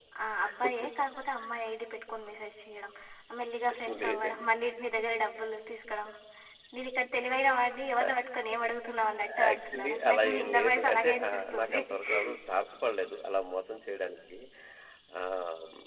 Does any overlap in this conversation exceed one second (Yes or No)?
Yes